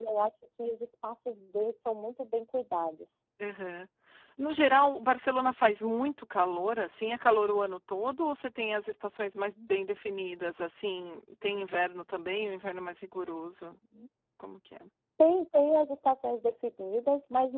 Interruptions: none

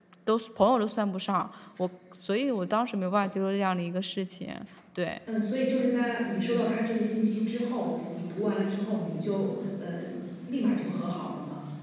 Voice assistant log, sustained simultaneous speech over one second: none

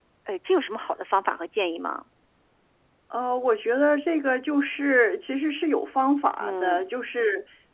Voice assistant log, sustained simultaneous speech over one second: none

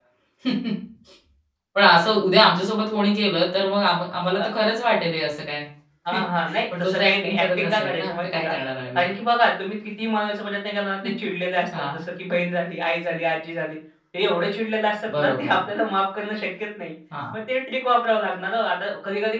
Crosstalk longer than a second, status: present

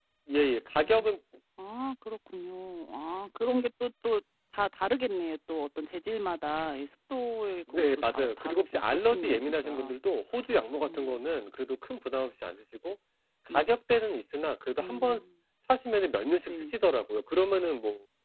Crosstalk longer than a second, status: present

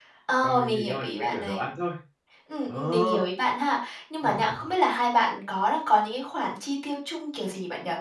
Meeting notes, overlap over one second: present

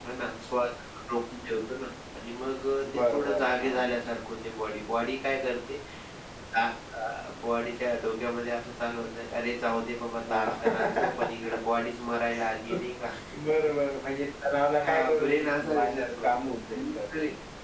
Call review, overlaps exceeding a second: present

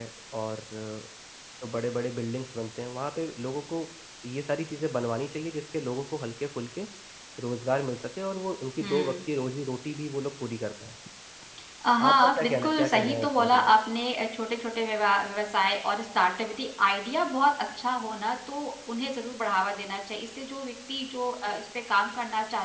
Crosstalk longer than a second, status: present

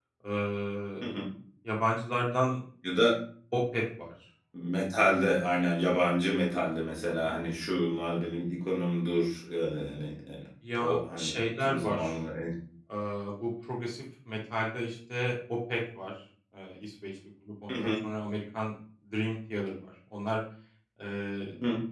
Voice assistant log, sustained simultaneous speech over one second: present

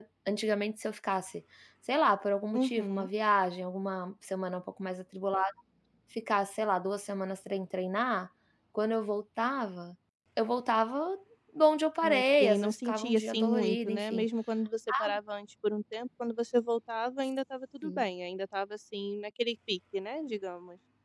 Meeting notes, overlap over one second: present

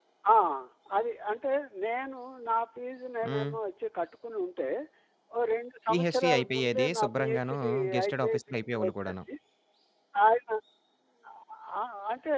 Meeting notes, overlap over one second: present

